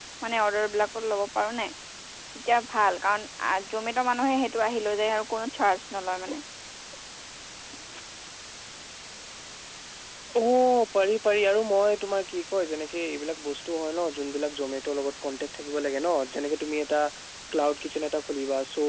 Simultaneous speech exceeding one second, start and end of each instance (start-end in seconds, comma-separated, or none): none